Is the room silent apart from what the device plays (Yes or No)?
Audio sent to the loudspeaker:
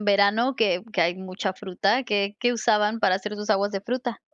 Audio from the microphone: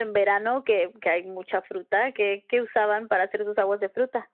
Yes